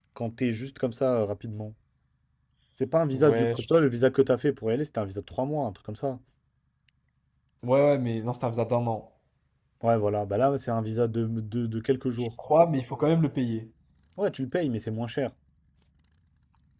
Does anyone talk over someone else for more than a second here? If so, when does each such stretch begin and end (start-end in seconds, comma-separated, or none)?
none